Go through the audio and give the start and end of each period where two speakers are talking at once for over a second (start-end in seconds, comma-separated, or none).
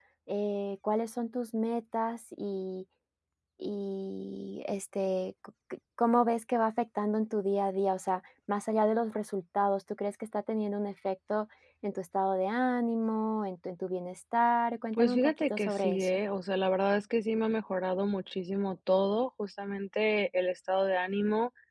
15.0-16.2